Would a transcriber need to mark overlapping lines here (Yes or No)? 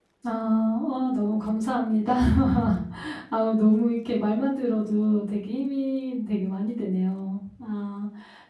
No